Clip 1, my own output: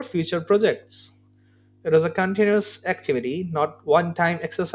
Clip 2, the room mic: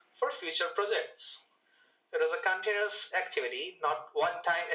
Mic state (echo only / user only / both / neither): echo only